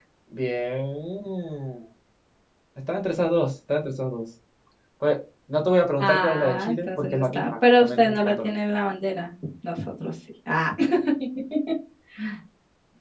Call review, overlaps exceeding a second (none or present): present